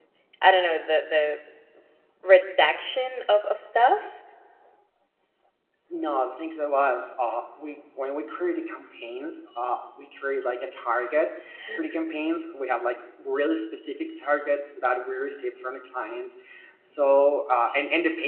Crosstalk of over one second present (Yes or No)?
No